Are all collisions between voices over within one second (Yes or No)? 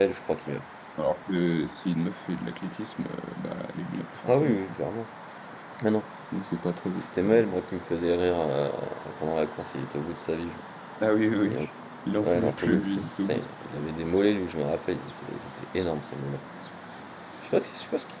No